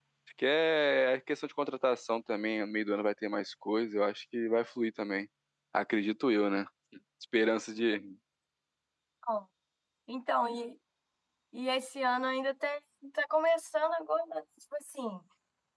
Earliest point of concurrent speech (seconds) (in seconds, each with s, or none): none